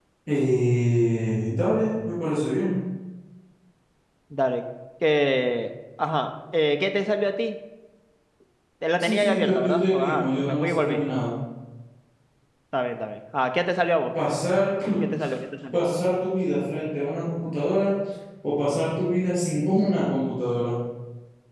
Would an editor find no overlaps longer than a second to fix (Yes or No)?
No